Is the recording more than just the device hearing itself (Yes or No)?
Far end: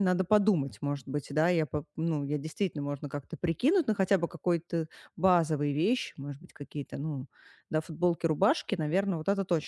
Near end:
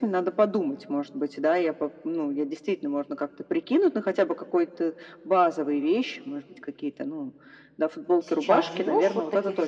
Yes